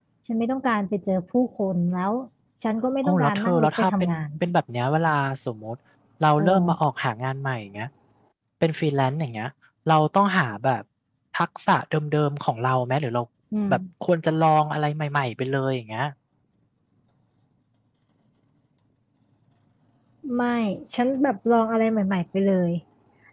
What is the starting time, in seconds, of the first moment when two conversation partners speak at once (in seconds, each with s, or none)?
3.0 s